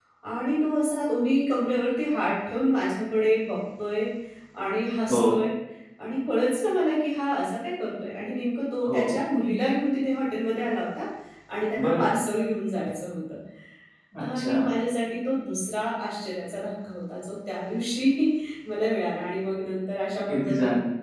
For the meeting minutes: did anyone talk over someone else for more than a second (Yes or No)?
No